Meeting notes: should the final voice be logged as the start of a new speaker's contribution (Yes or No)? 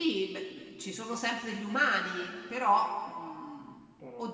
No